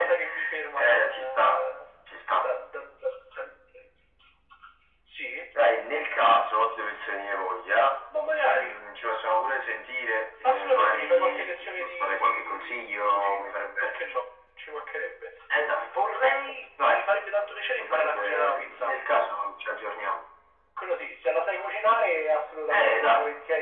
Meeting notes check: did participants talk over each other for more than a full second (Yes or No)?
Yes